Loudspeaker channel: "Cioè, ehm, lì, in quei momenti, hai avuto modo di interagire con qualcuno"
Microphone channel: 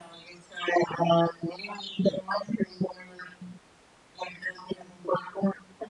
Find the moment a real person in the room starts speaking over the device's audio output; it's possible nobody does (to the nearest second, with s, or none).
none